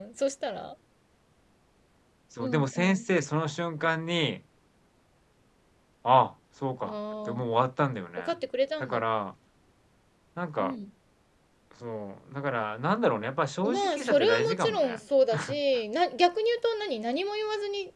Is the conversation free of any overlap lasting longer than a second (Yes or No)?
No